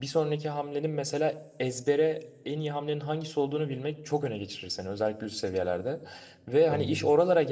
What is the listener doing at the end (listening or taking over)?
listening